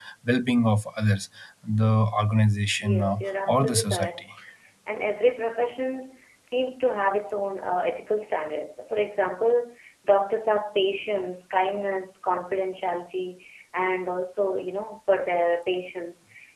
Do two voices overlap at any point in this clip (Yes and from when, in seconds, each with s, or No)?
Yes, from 2.8 s